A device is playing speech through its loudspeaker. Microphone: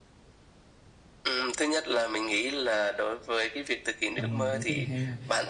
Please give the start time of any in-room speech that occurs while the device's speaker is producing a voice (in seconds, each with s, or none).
4.2 s